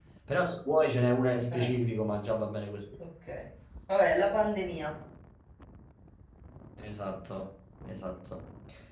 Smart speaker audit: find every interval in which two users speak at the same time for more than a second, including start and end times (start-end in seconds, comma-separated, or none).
none